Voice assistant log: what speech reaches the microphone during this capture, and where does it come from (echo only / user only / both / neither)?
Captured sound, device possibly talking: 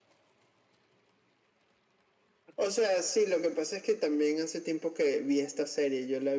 echo only